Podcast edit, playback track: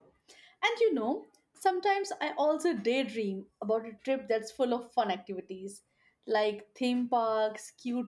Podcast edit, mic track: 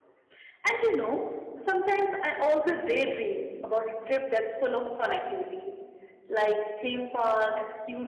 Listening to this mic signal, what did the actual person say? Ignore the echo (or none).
none